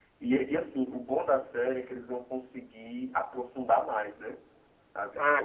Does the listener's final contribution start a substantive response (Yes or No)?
Yes